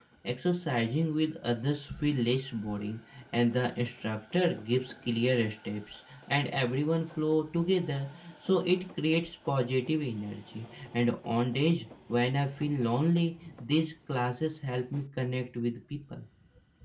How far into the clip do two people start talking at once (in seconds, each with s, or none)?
none